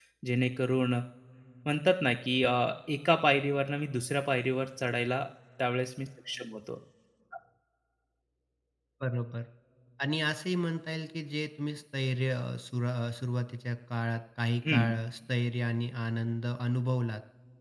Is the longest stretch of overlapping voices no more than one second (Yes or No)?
Yes